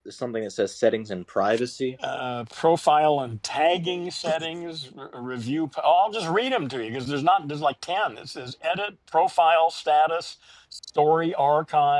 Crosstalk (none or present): none